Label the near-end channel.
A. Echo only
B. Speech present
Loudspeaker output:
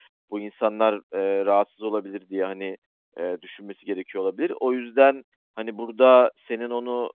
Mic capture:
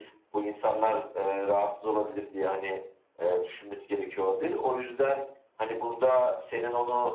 A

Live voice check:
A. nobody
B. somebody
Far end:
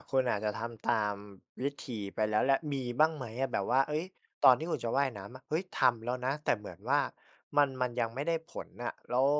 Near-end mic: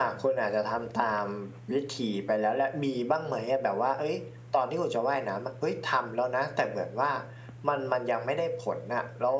A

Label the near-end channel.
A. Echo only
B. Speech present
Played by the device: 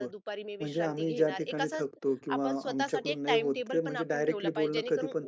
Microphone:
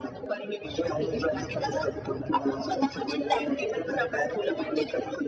A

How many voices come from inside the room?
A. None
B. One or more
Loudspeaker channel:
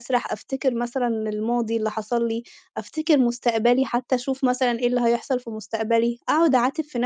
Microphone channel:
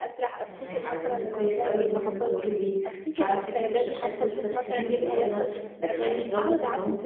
B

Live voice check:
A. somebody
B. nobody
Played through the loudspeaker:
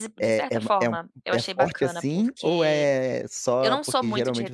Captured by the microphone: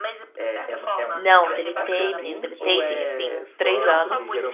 A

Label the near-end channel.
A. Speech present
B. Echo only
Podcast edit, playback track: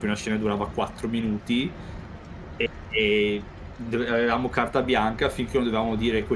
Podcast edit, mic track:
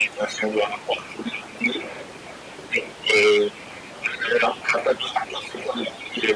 B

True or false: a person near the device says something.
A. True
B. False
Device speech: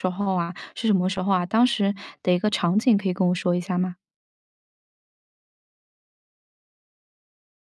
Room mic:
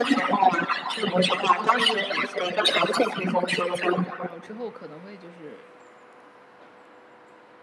A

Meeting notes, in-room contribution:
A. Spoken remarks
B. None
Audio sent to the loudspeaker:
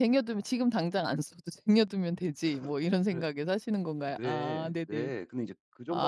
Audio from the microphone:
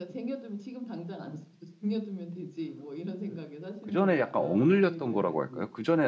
A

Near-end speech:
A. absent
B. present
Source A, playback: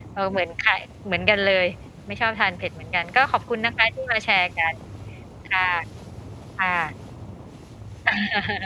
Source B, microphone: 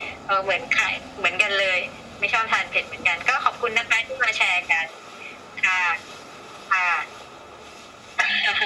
A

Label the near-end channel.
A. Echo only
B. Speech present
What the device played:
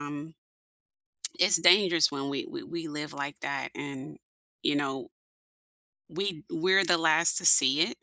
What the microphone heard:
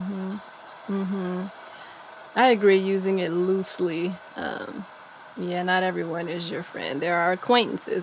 B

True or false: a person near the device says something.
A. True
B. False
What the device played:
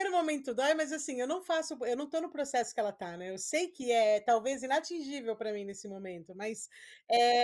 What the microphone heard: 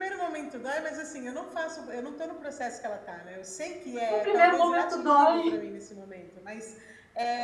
A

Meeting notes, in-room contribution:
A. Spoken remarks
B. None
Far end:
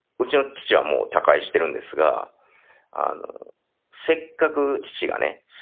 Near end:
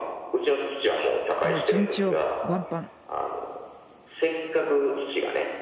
A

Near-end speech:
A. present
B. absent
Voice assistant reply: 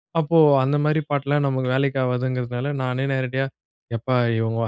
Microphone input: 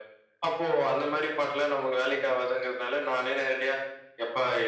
B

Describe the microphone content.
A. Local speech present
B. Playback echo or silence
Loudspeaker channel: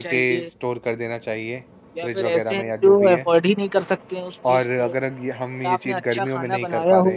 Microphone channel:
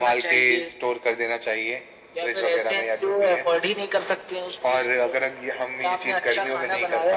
B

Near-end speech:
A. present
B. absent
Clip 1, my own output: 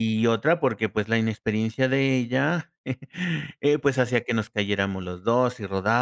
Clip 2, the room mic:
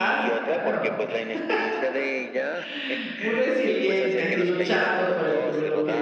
A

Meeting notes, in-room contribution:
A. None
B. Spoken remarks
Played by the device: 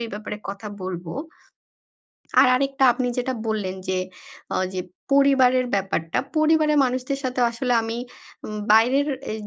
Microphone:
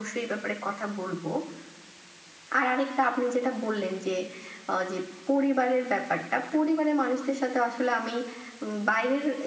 A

